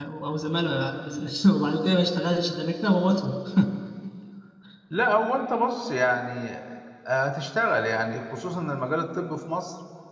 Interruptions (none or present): none